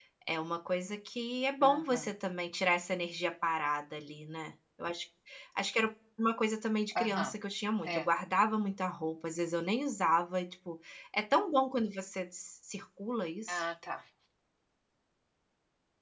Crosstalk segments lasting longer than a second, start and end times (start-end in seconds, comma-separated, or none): none